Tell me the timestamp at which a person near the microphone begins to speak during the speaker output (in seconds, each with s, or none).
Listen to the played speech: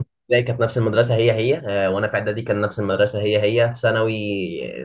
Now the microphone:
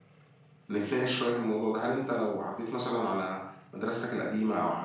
0.7 s